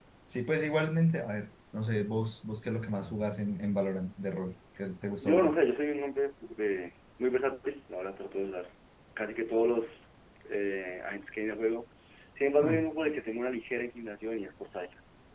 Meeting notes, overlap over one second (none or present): none